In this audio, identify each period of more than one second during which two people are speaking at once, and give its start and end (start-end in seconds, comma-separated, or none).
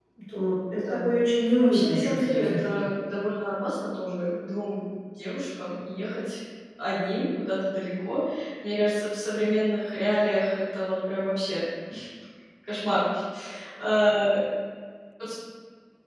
1.6-2.9